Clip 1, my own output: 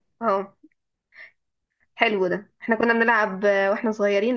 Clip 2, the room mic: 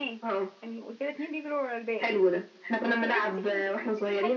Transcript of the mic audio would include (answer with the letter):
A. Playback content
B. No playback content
A